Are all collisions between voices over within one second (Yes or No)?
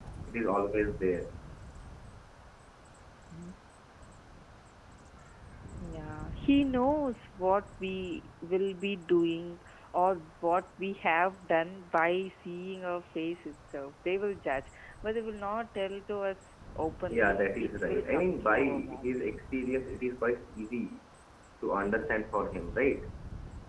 No